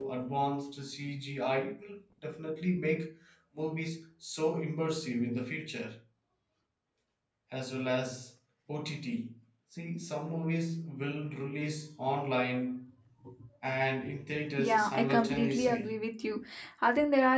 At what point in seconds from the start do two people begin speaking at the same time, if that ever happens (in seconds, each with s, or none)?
14.6 s